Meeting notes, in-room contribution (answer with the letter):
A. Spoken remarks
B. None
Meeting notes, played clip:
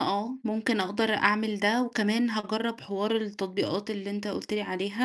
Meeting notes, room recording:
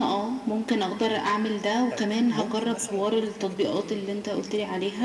A